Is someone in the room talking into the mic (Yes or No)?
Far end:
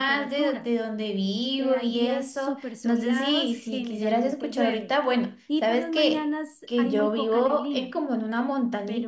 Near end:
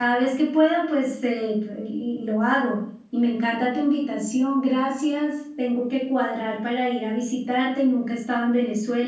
Yes